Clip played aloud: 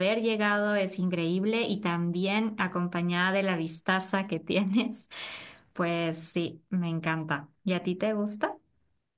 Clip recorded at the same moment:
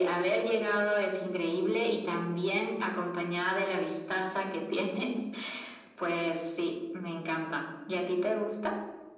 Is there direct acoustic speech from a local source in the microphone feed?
No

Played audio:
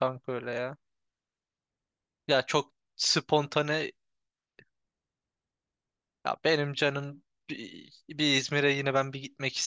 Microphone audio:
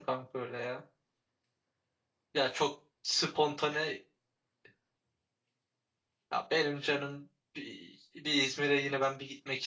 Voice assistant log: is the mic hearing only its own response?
Yes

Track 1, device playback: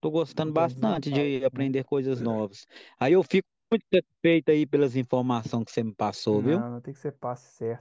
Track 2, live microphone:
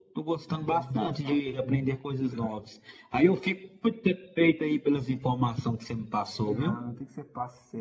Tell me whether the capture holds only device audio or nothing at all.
Yes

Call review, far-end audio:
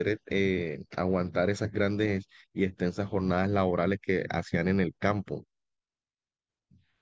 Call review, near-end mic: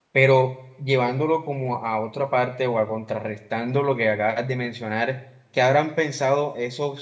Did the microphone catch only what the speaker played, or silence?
No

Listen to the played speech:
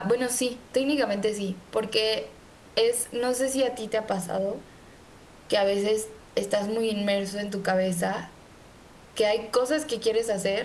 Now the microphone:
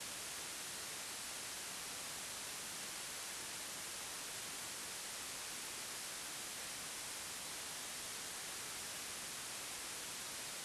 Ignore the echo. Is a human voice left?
No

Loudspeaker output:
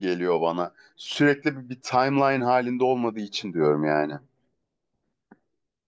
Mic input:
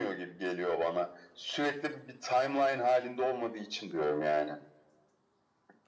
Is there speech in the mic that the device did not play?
No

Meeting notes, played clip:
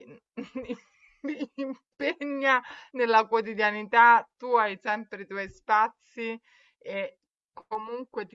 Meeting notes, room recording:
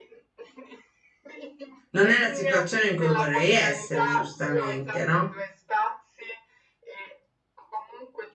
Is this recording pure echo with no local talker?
No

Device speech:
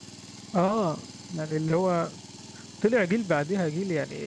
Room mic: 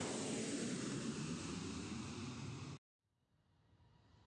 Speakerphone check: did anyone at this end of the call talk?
No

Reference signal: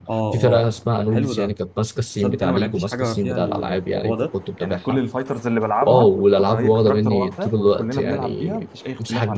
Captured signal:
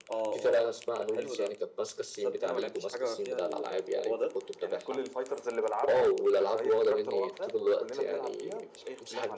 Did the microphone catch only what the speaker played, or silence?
Yes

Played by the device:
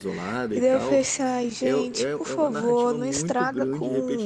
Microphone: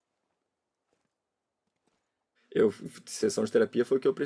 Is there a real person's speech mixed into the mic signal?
Yes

